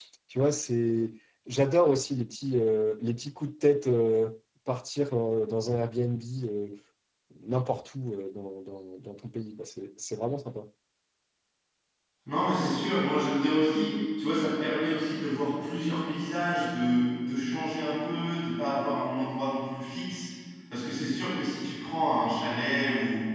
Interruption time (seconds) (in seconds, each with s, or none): none